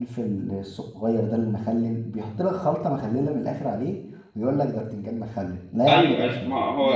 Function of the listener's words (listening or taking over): taking over